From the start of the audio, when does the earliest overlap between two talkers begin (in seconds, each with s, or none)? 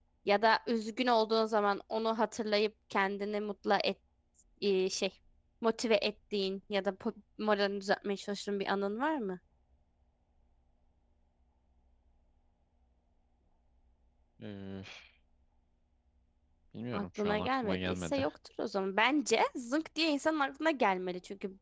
16.9 s